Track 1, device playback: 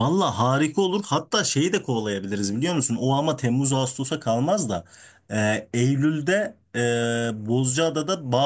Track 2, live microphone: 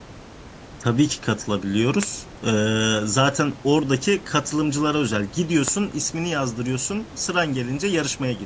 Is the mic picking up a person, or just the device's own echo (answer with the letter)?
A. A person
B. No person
A